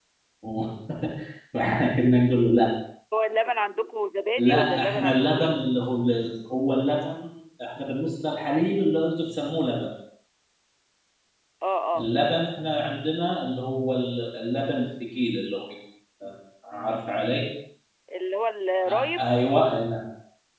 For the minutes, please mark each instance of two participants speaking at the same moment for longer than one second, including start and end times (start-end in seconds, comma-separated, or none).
4.4-5.6